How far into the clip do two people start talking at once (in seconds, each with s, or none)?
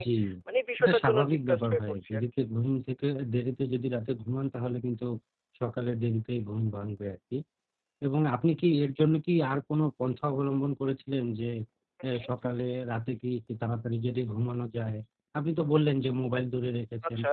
0.8 s